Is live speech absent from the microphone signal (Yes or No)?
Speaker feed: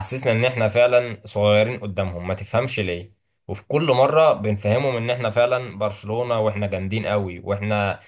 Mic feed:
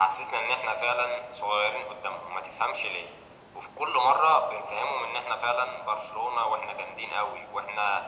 Yes